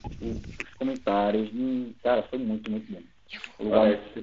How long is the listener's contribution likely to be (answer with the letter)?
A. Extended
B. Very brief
A